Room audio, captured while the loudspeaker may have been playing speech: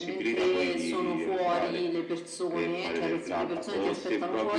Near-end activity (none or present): none